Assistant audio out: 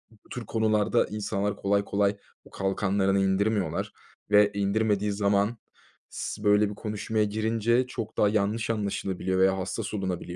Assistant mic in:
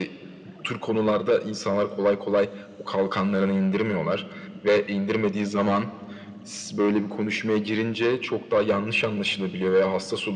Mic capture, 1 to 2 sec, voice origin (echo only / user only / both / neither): echo only